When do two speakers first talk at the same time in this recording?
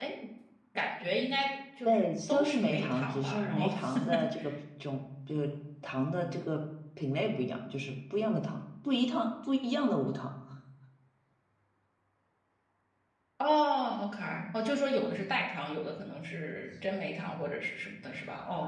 1.8 s

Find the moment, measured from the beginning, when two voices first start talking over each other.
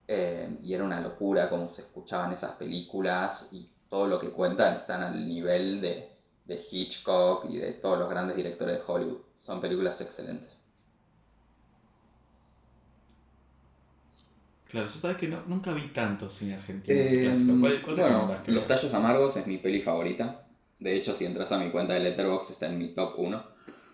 16.9 s

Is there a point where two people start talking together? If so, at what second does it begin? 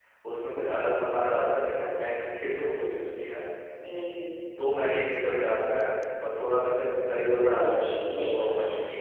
7.5 s

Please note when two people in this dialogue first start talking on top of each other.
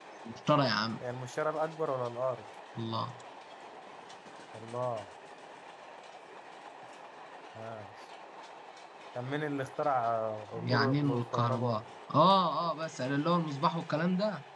10.5 s

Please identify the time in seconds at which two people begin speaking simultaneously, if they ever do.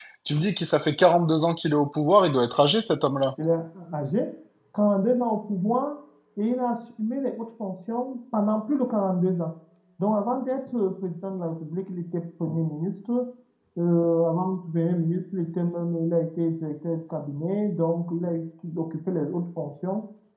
none

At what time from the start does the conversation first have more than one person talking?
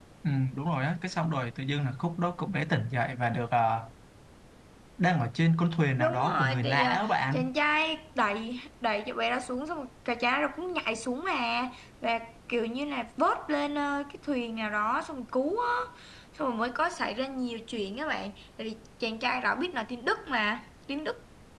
6.0 s

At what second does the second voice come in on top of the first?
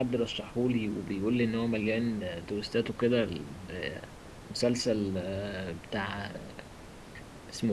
none

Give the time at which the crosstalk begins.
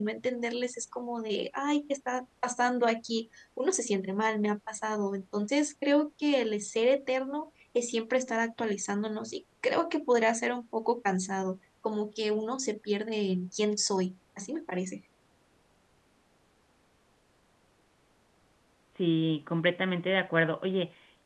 none

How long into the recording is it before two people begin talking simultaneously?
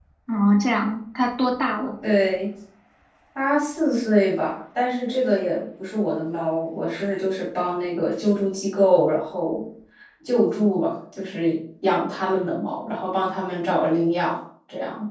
none

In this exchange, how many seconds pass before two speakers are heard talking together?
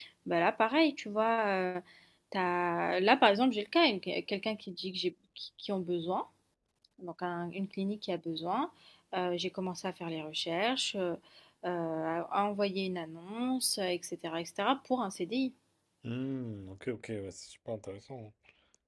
none

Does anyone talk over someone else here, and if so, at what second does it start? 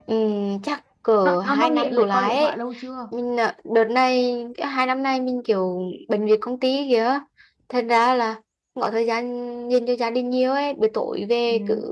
1.2 s

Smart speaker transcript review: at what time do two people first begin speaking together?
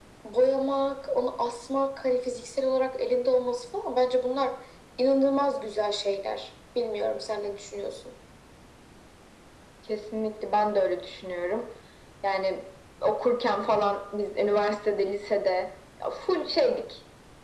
none

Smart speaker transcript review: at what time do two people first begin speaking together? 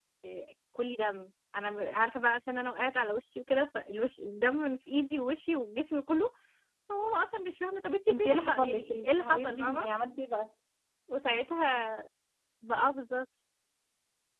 8.1 s

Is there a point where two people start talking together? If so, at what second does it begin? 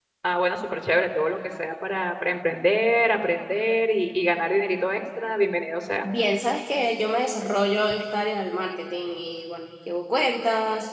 none

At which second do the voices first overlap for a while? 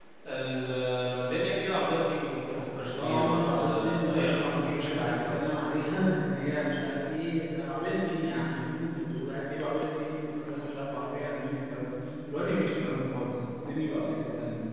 2.9 s

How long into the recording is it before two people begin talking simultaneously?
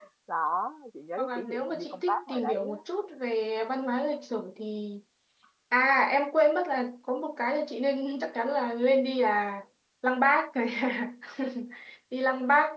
1.2 s

